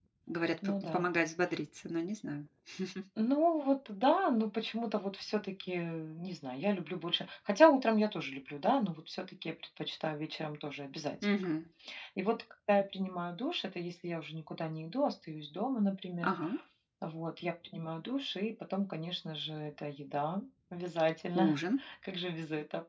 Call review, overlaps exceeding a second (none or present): none